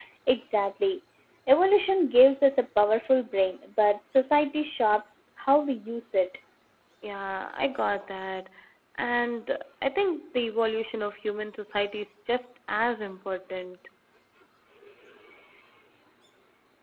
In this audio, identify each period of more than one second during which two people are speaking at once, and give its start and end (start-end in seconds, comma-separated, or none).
none